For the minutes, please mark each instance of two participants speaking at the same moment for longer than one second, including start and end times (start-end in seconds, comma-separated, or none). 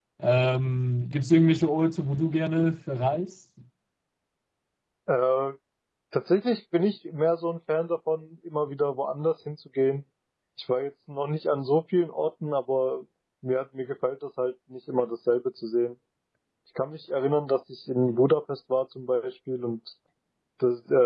none